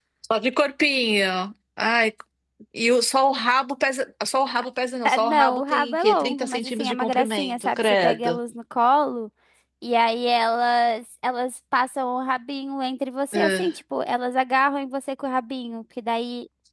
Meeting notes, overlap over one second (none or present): present